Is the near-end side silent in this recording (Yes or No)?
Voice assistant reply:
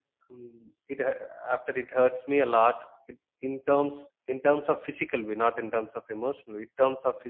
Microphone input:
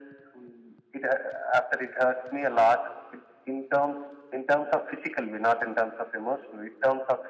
Yes